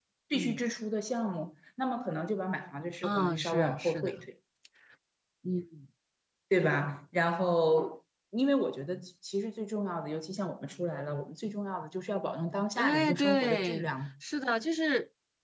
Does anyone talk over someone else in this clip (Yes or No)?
Yes